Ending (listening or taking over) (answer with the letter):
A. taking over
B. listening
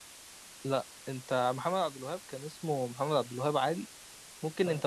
B